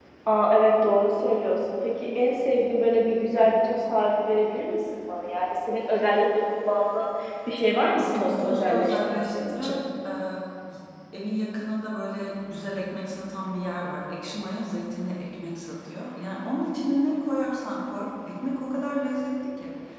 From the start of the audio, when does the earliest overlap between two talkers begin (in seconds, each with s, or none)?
7.9 s